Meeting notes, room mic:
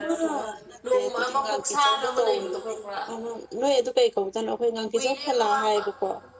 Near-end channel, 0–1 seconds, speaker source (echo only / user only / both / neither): both